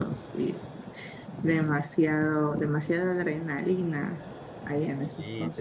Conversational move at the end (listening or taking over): taking over